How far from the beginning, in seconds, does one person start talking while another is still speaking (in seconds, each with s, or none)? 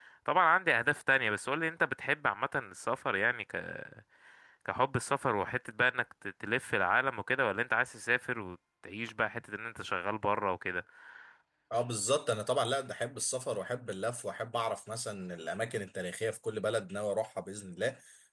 none